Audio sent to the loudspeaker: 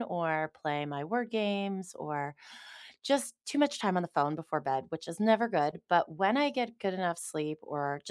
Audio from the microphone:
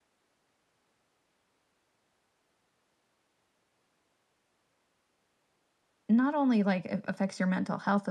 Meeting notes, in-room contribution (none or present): present